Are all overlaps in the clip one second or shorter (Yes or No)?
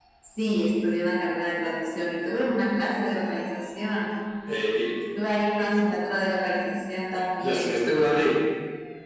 Yes